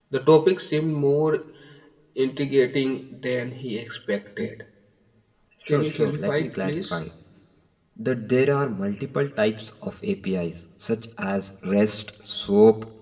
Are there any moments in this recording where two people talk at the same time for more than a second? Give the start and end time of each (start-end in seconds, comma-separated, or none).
5.7-7.0